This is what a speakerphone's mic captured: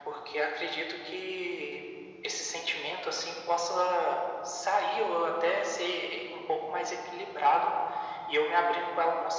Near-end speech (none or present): none